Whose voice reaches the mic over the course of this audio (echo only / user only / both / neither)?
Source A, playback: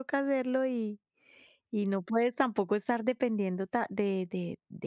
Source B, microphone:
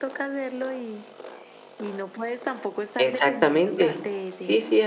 both